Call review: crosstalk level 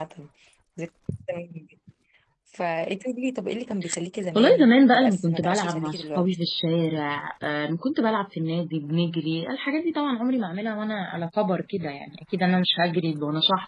present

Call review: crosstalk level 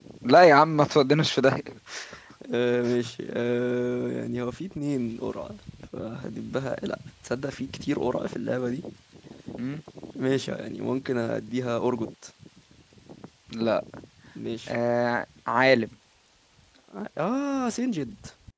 none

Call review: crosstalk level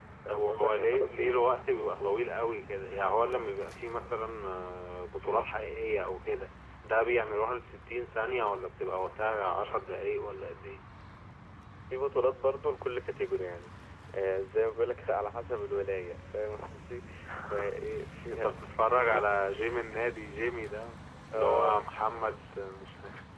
present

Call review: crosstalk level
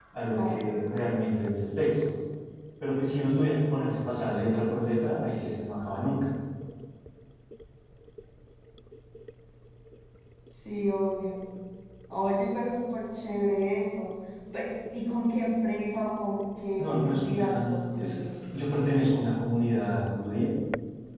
present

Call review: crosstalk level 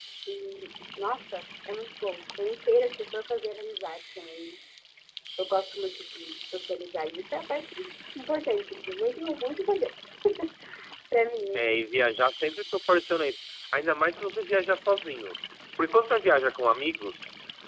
none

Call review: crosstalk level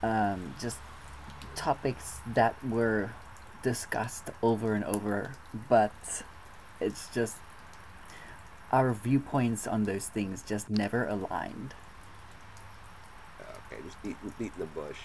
none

